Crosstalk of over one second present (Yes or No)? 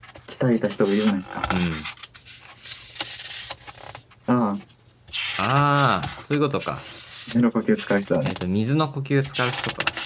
No